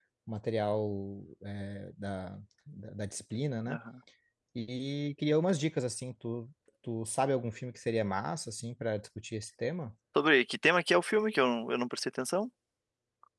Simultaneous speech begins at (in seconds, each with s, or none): none